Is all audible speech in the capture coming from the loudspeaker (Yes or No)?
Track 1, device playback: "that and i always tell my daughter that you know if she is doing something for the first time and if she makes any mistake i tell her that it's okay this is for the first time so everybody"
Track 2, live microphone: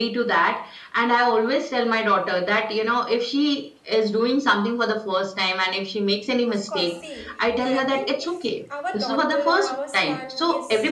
No